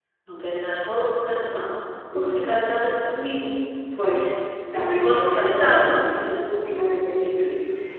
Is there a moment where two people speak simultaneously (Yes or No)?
Yes